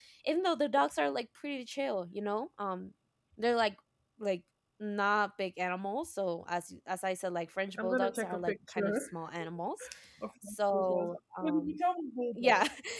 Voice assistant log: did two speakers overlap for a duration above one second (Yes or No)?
Yes